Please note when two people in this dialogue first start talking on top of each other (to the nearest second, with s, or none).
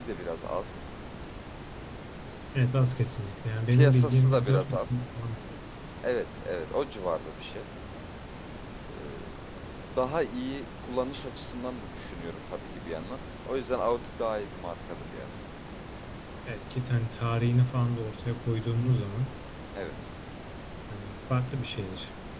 4 s